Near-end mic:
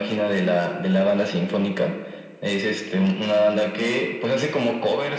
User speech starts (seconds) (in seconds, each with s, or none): none